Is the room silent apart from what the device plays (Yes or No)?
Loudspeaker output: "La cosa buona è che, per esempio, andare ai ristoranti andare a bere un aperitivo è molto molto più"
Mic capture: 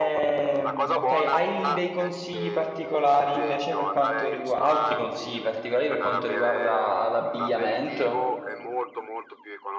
No